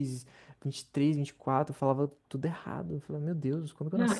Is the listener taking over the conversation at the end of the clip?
Yes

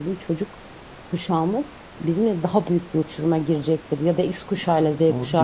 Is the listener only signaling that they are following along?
No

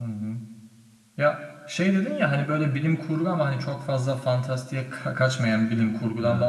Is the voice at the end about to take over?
No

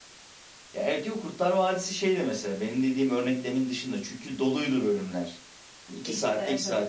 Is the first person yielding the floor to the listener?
No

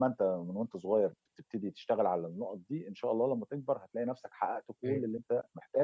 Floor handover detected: No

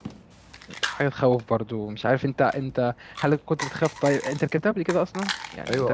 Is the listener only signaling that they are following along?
No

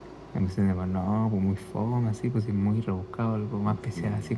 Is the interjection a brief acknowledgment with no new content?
Yes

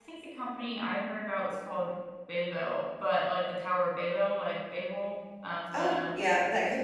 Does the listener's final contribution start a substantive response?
Yes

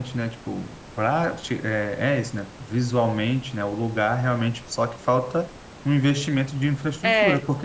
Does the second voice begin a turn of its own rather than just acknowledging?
No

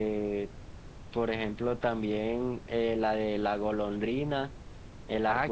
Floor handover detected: Yes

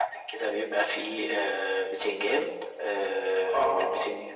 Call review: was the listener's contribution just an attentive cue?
Yes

